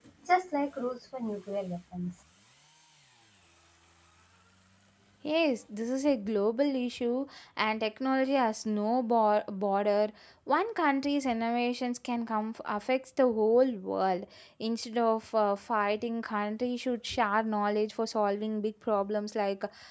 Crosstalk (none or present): none